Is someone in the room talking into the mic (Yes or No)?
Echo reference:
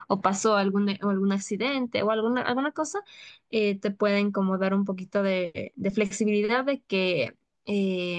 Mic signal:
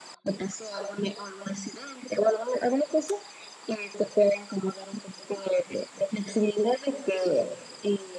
No